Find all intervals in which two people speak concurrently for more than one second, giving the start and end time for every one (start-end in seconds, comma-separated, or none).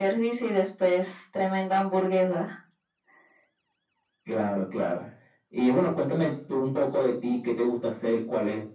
none